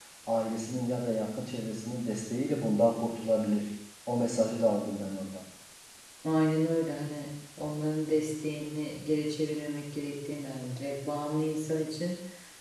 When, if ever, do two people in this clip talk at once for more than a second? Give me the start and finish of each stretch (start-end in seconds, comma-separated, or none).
none